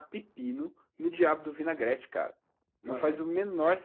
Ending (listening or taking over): listening